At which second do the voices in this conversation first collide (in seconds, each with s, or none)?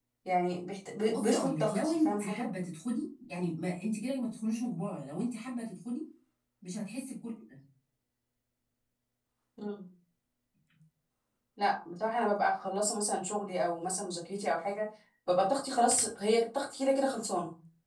1.1 s